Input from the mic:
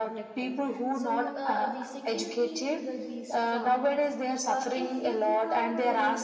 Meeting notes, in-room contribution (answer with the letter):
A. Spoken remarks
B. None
A